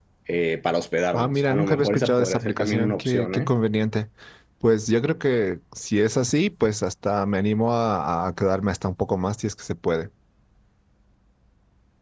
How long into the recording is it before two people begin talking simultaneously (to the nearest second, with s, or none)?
1 s